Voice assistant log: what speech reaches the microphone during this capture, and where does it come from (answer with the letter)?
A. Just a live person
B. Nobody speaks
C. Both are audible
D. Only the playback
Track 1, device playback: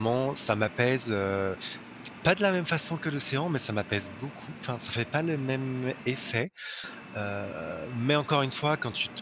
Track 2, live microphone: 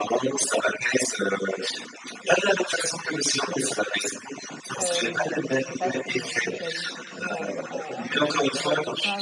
C